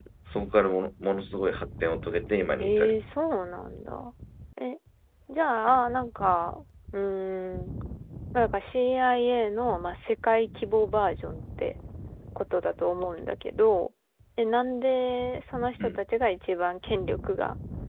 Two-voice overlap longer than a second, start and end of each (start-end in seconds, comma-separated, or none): none